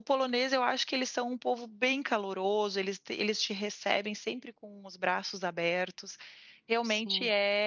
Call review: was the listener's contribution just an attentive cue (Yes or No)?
Yes